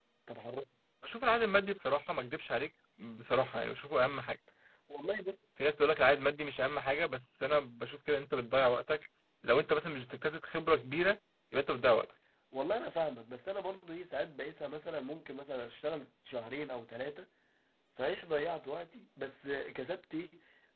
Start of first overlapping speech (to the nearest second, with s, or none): none